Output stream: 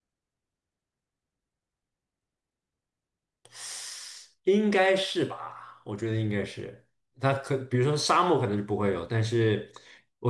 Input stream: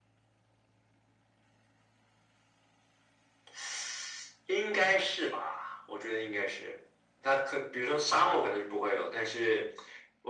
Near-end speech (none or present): none